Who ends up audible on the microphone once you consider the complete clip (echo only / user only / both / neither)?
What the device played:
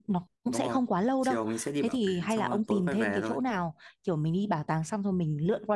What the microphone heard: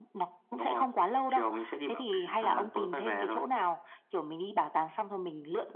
both